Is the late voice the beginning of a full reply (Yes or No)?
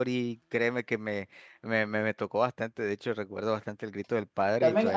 Yes